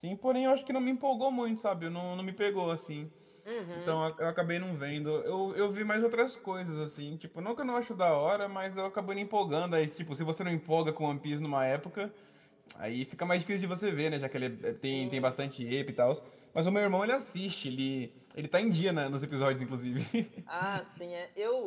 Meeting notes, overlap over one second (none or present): none